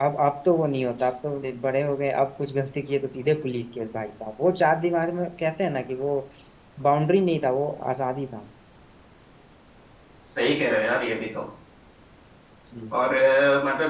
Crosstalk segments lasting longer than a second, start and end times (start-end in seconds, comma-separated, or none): none